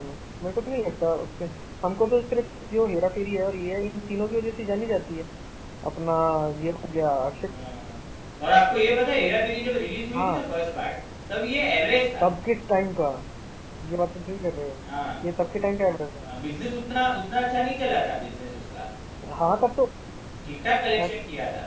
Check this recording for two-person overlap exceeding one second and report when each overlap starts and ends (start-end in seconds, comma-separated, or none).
none